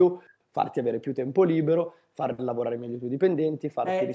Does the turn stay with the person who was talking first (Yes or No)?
No